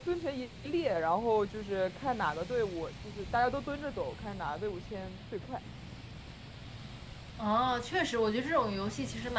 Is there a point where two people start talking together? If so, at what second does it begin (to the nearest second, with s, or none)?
none